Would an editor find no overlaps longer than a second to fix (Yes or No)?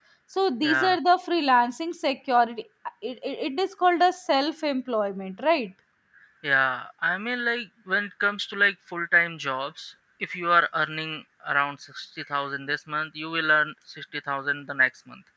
Yes